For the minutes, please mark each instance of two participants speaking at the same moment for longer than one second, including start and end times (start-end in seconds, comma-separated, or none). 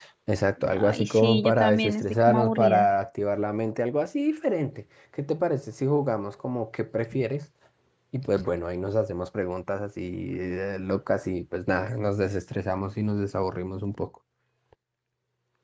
0.7-2.9